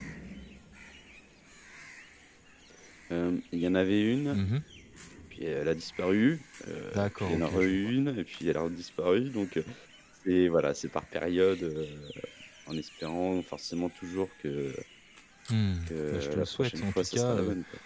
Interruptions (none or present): present